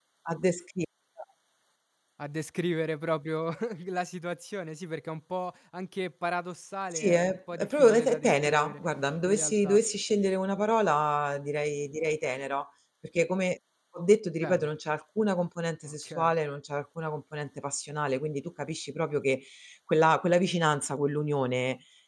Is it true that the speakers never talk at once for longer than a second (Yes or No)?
No